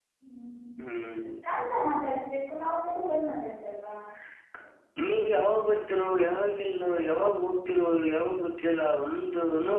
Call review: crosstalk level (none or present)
none